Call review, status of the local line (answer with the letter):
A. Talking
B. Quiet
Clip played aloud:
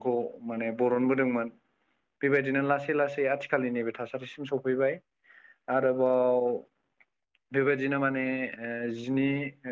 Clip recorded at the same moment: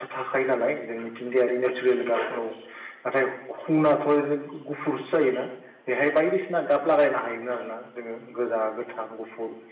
A